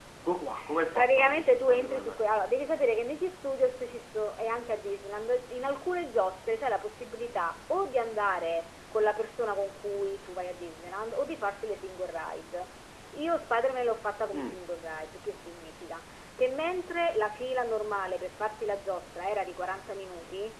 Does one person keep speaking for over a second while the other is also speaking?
Yes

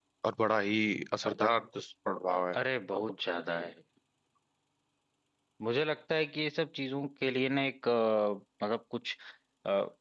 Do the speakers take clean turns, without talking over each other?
Yes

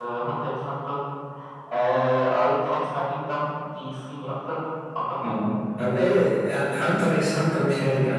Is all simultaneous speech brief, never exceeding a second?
Yes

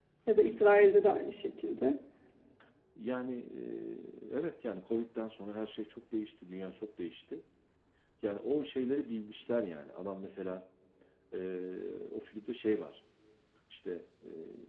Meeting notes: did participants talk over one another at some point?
No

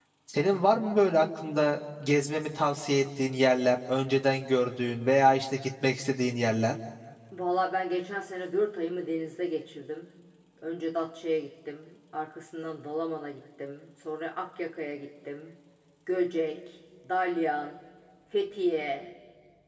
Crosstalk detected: No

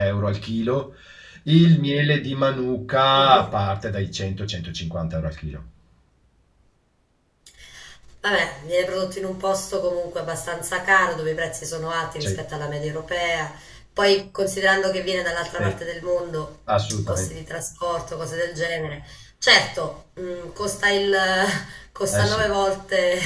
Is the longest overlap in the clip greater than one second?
No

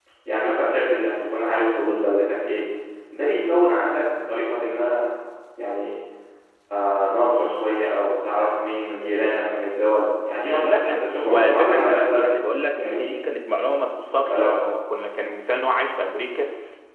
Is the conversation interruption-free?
No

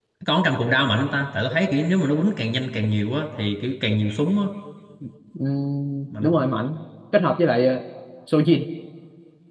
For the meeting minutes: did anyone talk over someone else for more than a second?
No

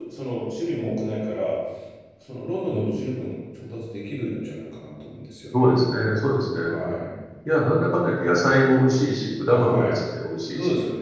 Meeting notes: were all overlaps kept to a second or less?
Yes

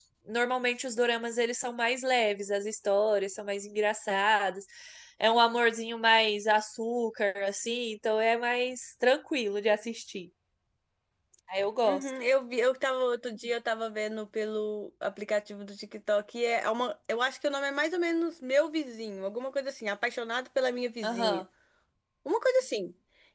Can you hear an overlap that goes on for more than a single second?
No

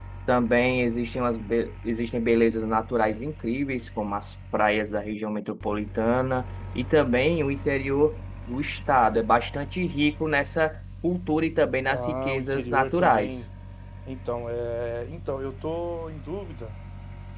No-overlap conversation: No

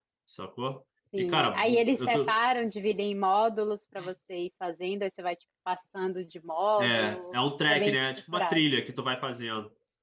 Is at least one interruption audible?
Yes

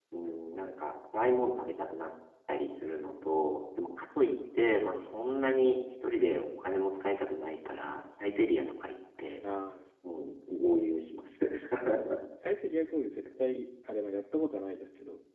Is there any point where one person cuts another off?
No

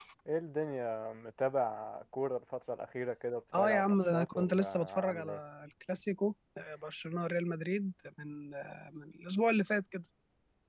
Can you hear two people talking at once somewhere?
Yes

